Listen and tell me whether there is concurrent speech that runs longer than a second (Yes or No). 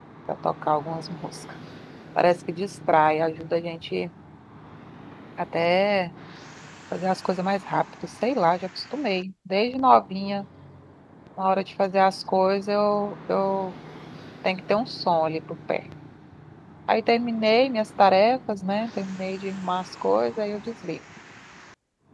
No